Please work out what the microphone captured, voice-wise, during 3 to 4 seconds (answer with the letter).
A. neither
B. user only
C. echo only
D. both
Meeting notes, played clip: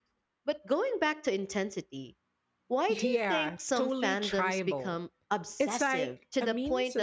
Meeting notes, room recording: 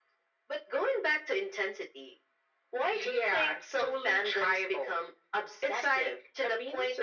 C